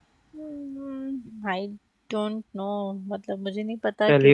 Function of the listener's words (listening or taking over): taking over